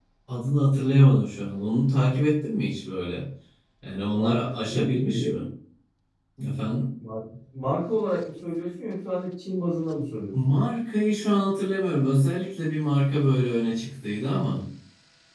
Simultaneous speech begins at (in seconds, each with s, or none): 4.1 s